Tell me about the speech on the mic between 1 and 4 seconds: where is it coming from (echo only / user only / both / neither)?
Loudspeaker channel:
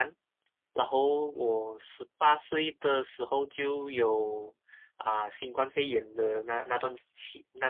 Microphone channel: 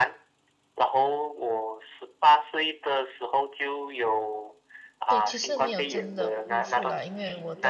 echo only